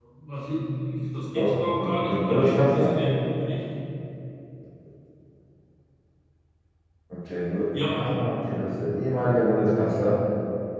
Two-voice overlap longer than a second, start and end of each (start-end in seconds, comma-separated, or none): 1.4-3.0